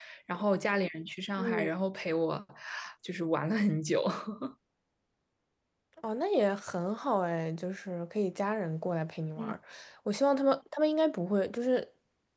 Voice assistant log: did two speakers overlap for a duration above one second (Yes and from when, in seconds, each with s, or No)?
No